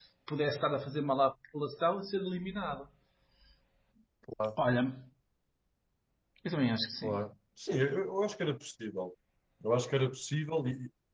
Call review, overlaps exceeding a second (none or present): none